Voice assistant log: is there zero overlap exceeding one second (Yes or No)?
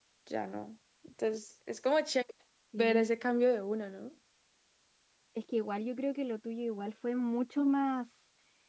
Yes